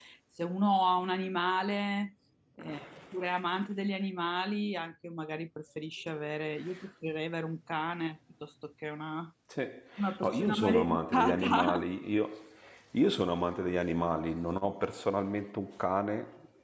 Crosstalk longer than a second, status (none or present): present